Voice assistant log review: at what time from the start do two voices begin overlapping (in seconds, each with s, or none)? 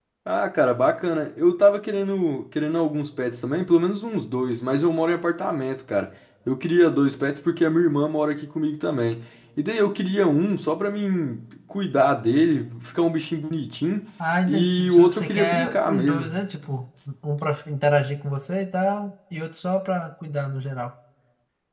14.4 s